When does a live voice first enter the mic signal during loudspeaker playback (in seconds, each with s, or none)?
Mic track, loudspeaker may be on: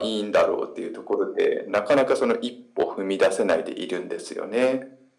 none